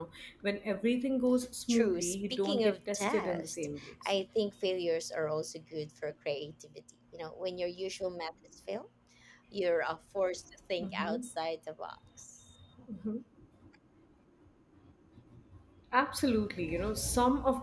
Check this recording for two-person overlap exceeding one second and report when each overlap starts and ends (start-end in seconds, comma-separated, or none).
1.7-4.1